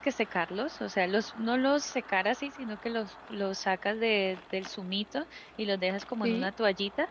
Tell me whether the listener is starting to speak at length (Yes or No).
No